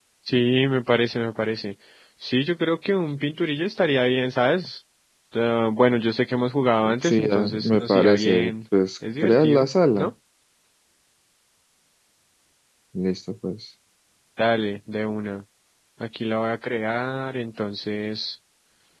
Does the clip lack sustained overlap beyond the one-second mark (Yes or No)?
No